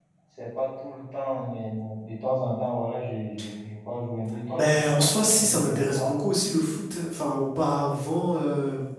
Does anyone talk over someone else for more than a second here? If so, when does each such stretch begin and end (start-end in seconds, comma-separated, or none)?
4.5-6.1